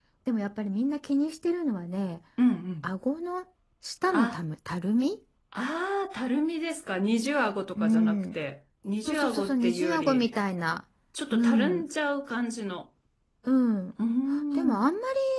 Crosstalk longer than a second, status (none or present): present